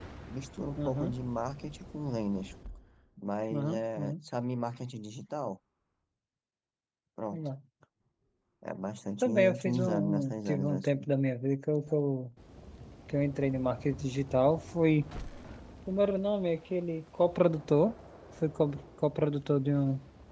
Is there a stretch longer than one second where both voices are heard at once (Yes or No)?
Yes